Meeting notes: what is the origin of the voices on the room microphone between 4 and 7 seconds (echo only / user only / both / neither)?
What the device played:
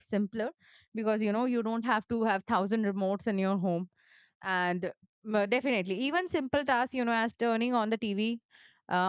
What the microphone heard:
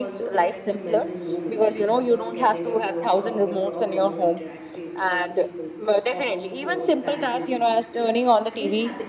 both